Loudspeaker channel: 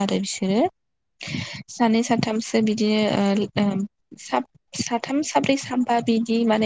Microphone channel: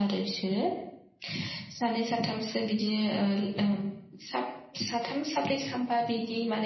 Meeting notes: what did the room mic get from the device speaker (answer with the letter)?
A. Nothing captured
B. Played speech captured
B